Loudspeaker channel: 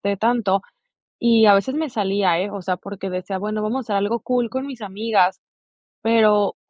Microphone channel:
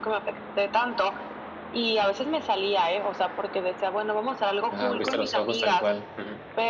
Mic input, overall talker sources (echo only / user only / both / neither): both